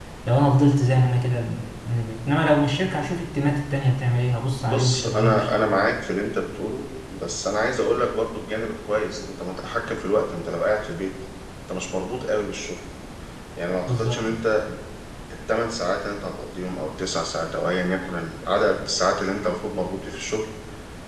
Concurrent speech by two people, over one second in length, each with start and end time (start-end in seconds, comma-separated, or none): 4.7-5.9